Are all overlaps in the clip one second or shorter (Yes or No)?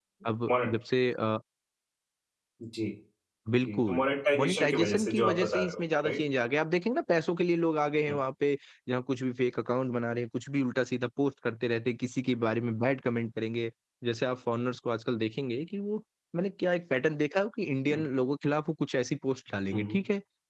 No